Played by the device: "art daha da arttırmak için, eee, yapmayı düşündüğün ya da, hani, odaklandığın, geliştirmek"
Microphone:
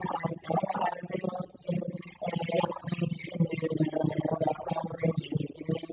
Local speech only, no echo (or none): none